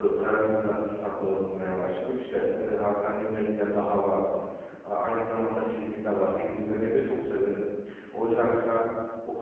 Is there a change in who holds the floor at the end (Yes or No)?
No